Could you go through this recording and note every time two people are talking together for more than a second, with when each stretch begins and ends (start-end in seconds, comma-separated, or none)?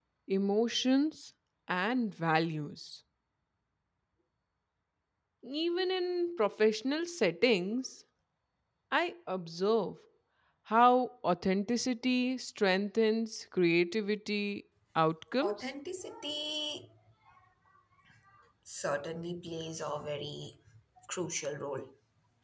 none